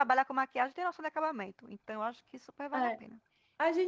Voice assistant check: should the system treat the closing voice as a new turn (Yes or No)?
Yes